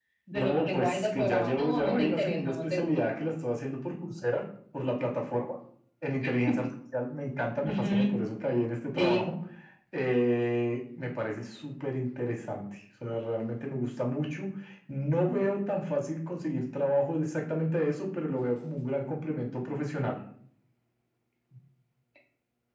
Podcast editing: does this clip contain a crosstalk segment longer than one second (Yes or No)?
Yes